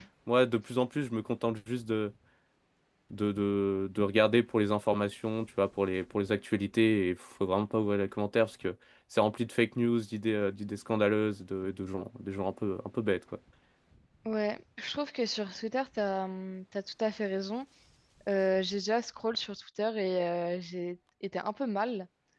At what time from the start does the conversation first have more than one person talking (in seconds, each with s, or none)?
none